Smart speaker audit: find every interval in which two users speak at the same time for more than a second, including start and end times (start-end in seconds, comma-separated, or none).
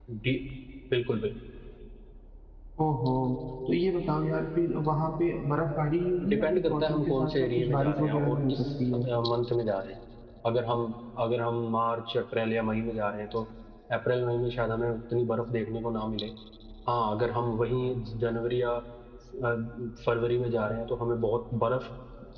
6.3-8.6